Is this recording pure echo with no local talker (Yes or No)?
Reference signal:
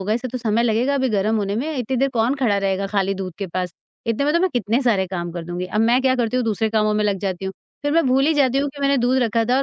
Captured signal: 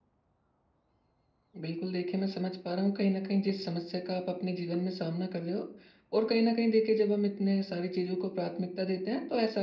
No